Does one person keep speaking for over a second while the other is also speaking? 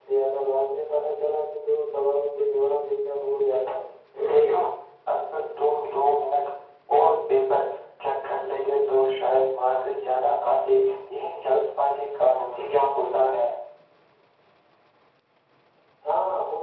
No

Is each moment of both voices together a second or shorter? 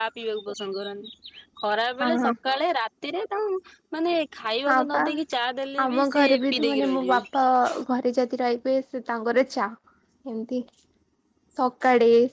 No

